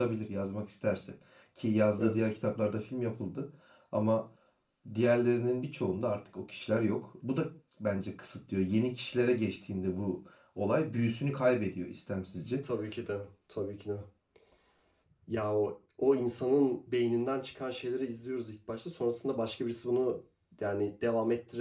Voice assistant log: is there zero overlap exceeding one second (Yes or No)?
Yes